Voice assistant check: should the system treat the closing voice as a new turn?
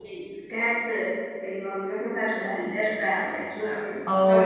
Yes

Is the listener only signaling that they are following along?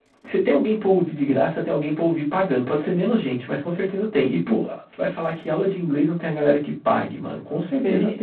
No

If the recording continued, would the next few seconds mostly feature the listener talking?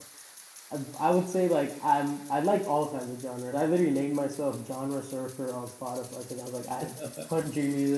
No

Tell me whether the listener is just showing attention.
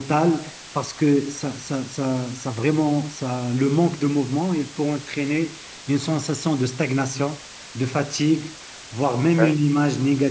Yes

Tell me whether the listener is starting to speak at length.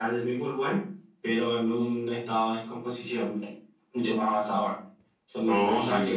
Yes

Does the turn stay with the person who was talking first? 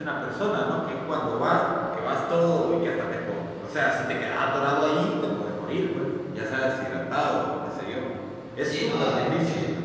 No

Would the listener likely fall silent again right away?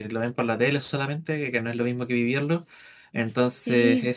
Yes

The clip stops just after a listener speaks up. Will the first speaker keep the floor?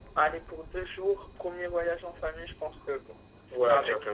No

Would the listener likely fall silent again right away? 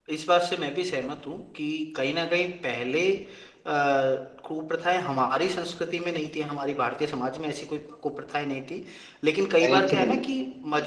Yes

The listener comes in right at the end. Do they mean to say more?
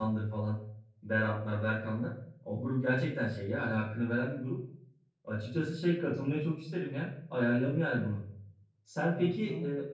No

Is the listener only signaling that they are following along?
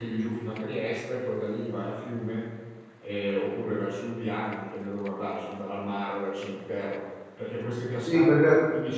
No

